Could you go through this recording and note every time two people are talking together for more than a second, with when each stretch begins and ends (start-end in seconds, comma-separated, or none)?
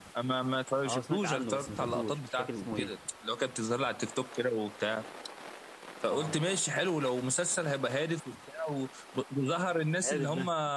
0.8-2.9